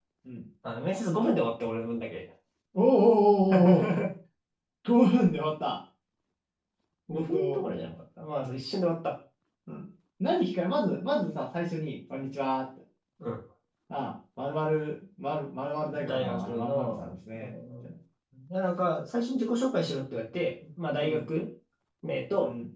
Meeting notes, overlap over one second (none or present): present